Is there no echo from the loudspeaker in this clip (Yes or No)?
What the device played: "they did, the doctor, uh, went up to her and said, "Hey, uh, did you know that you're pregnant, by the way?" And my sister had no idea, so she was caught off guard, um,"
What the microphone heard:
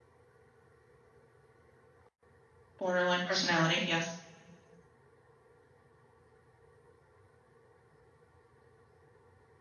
Yes